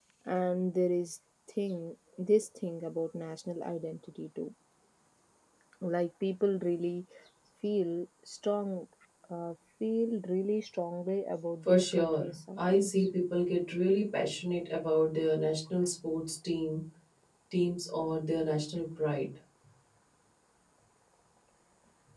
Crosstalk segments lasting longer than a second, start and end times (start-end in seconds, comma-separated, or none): 11.7-12.9